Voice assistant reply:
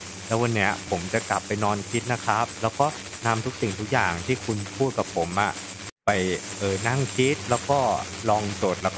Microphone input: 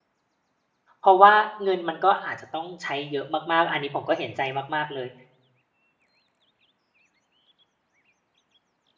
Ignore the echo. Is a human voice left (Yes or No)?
Yes